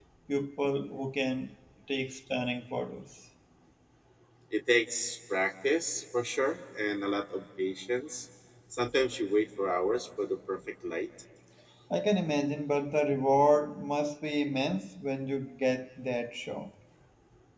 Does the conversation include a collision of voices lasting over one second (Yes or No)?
No